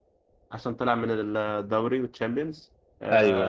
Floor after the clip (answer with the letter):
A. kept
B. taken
A